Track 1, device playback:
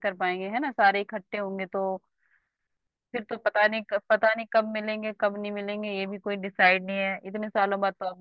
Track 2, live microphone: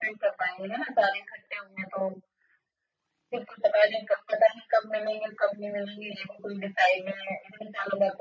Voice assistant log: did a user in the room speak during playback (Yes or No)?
No